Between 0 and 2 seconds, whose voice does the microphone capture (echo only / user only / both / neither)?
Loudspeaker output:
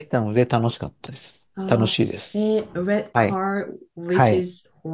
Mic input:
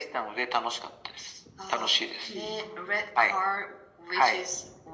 echo only